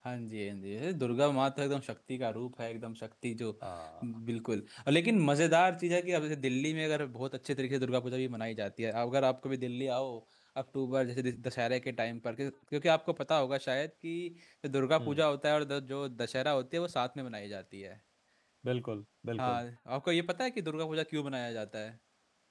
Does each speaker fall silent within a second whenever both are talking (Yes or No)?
Yes